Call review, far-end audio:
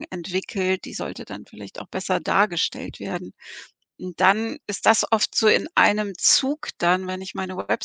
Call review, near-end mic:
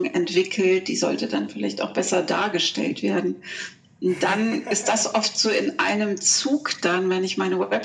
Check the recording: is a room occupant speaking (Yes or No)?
Yes